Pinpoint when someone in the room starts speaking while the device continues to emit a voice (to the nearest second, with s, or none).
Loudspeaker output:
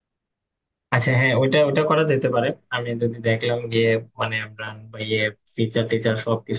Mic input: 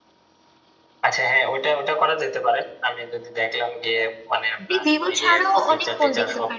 5 s